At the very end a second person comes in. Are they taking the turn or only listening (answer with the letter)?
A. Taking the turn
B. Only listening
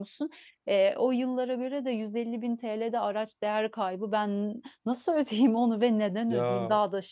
A